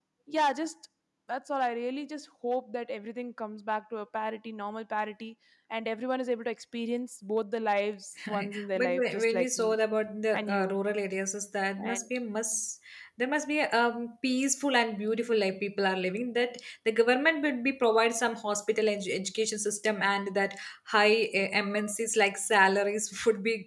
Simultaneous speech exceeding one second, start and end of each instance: 8.4-9.8

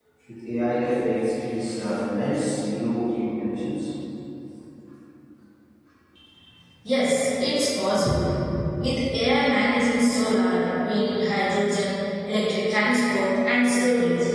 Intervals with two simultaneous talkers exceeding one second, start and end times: none

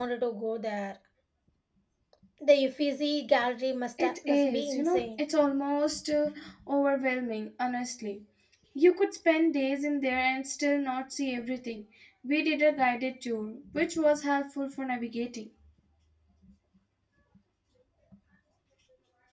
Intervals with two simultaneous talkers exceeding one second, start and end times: 4.0-5.2

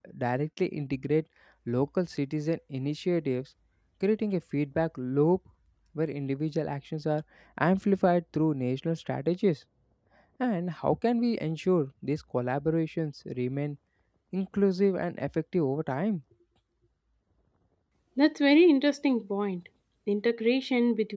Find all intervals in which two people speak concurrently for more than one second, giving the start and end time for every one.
none

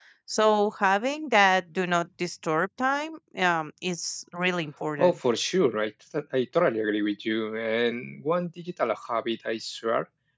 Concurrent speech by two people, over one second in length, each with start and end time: none

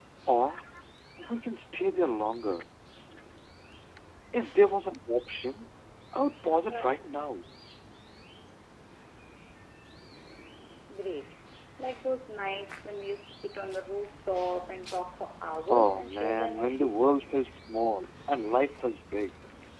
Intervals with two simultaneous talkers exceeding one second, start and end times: 15.7-17.1

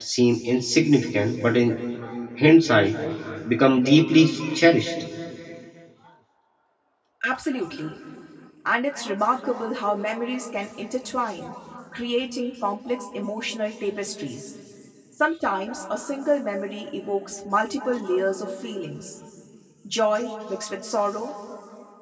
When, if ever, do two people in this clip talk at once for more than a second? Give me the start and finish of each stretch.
none

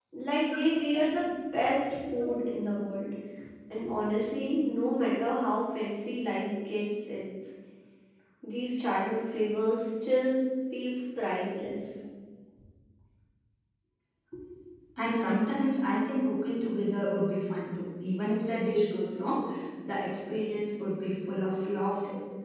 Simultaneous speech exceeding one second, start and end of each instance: none

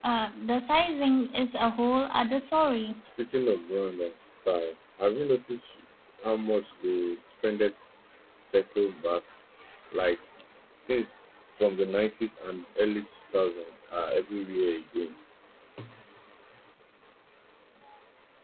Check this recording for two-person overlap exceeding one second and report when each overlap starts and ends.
none

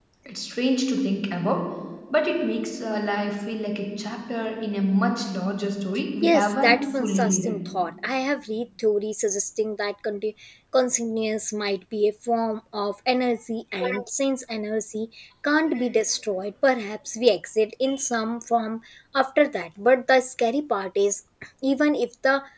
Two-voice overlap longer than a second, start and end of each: 6.2-7.5

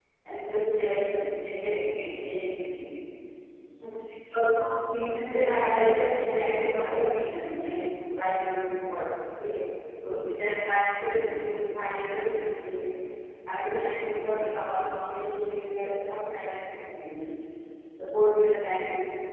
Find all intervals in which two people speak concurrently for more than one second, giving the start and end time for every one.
5.3-7.0

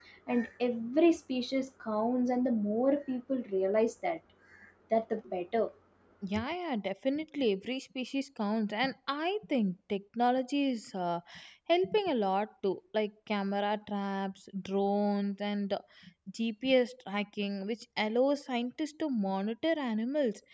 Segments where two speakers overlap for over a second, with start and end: none

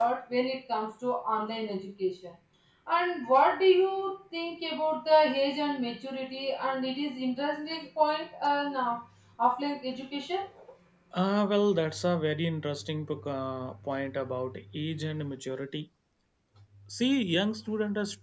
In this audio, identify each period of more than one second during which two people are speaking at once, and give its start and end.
none

